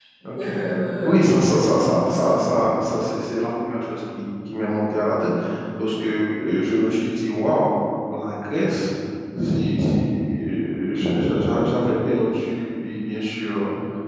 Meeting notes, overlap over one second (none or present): present